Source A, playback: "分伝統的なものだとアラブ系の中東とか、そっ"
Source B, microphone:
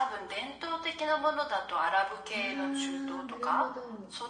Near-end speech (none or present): present